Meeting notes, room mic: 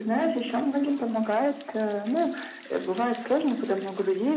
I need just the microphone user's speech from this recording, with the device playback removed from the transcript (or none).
none